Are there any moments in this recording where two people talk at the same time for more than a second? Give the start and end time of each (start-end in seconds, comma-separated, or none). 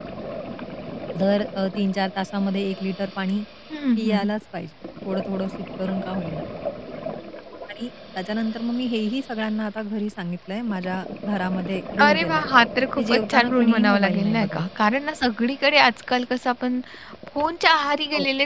13.0-14.6